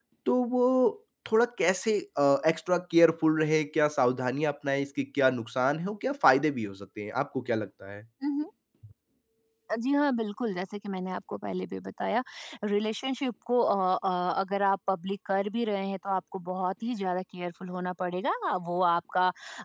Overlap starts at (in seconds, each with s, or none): none